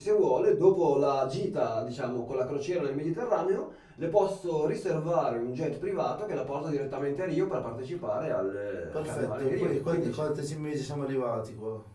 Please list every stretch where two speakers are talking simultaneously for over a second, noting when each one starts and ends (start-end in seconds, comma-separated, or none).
8.9-10.2